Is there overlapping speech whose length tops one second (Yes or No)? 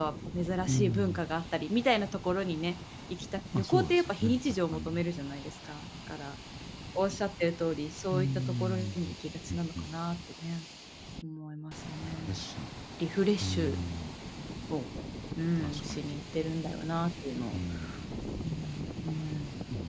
Yes